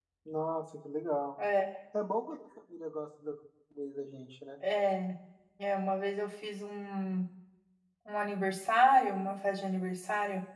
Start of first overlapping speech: none

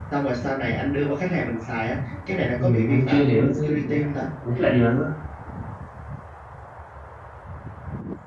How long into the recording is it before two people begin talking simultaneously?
3 s

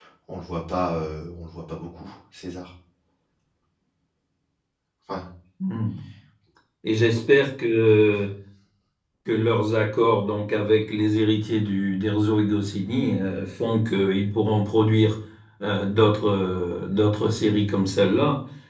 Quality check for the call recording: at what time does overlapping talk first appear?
none

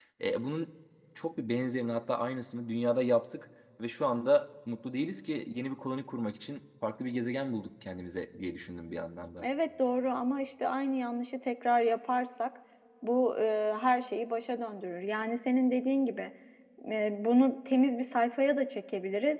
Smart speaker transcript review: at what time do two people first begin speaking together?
none

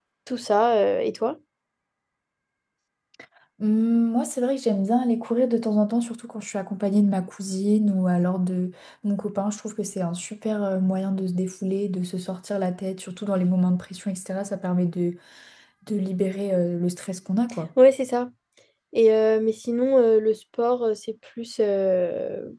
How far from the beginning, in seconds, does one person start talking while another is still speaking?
none

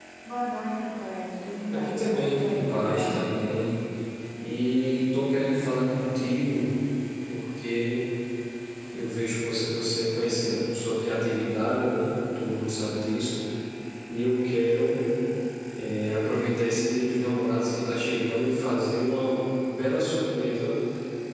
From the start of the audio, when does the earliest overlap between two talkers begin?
2 s

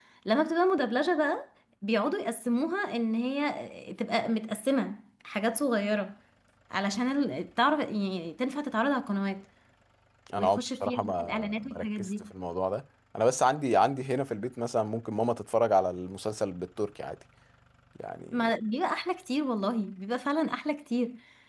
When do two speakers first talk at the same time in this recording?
10 s

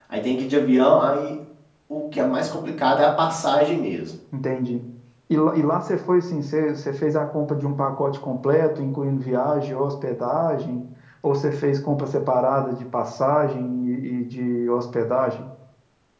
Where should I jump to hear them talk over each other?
none

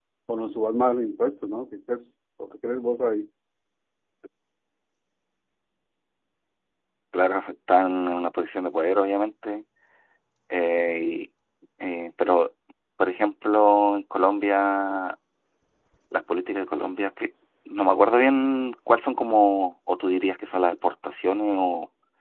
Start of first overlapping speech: none

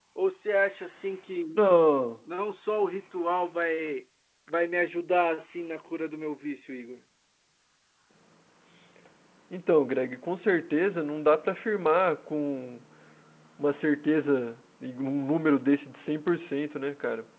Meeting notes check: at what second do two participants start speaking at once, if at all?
none

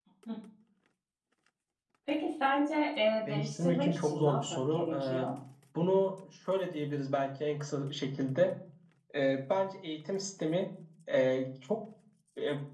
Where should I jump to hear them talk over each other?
3 s

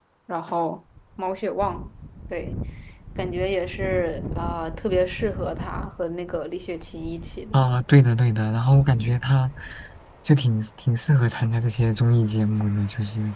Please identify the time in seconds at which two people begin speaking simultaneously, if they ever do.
none

